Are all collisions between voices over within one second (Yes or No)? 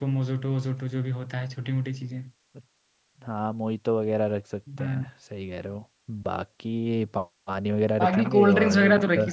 No